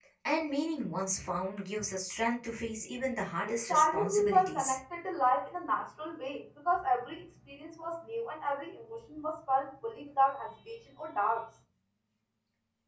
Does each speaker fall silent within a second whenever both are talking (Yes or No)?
No